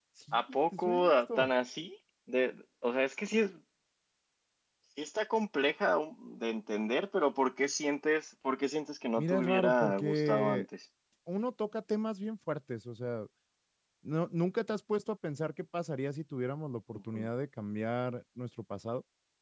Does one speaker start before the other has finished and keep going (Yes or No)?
Yes